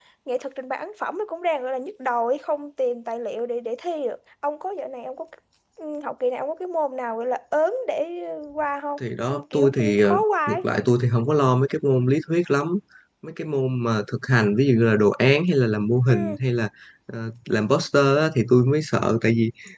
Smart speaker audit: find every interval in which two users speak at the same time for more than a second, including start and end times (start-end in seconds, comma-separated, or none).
9.2-10.6